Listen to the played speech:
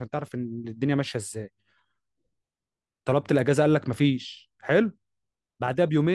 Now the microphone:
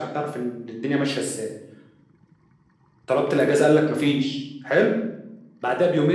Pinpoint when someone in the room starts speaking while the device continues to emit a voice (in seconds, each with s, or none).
none